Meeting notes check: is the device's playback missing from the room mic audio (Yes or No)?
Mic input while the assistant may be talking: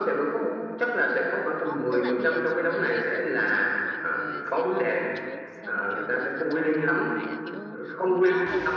No